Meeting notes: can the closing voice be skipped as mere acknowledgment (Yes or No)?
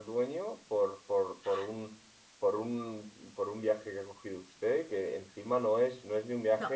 Yes